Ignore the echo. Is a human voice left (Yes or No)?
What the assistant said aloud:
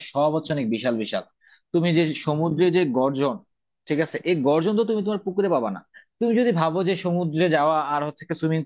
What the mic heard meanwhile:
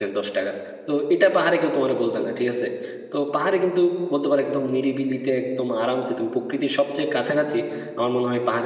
Yes